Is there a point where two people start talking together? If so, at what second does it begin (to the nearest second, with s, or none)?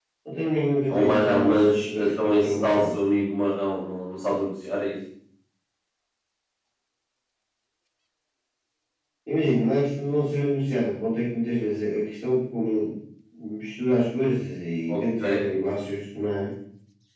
1 s